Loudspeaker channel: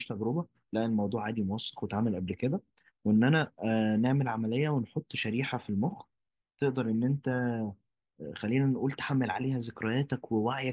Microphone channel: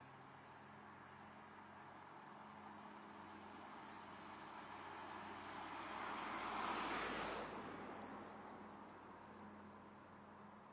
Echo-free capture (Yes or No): Yes